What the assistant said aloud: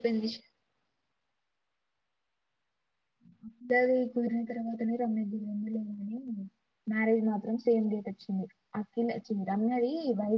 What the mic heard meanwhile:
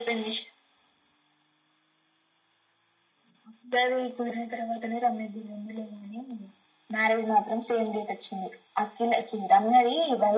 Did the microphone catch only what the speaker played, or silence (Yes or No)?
Yes